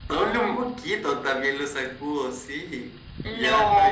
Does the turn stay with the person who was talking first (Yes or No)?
No